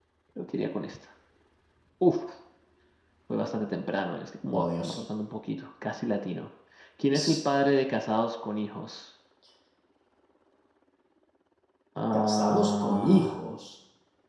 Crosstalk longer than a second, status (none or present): present